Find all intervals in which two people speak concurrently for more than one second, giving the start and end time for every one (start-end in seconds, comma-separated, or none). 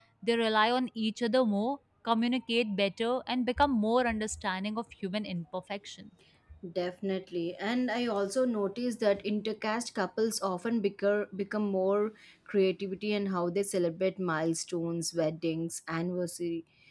none